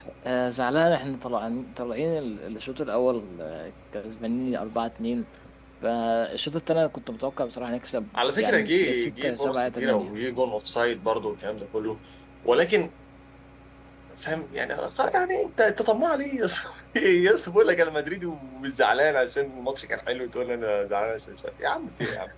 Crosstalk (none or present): present